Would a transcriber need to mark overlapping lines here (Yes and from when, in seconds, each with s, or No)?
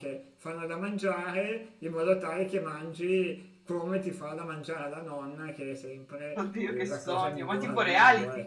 Yes, from 6.4 s